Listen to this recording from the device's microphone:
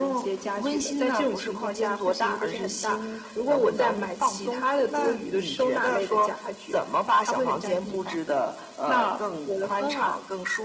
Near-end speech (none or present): none